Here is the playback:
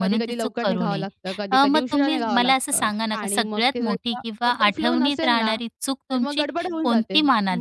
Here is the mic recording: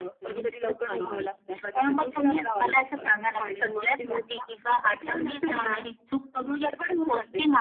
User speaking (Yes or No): No